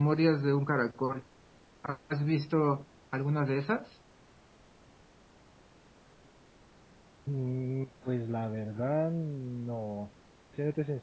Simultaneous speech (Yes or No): No